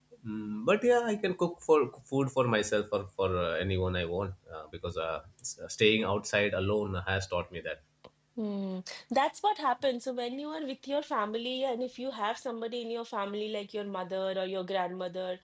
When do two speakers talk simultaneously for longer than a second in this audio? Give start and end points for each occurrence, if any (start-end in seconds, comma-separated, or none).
none